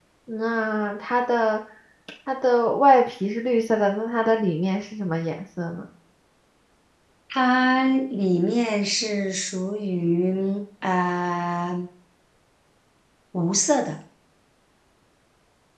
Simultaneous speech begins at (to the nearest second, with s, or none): none